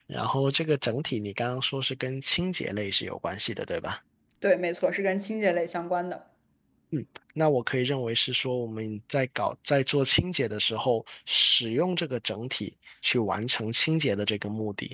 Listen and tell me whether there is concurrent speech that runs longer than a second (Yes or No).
No